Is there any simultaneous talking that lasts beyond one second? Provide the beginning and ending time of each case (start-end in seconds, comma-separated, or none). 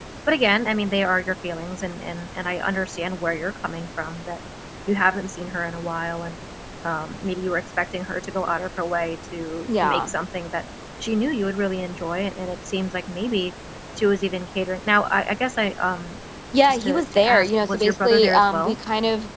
16.6-18.8